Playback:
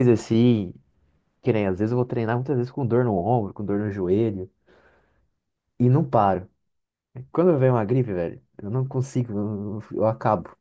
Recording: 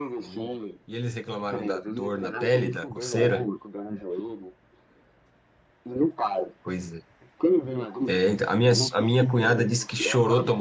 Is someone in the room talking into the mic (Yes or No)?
Yes